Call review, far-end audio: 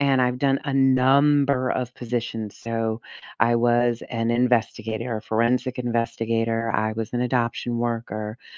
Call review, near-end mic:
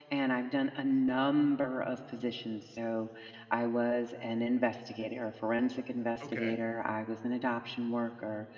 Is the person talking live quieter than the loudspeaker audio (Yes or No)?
Yes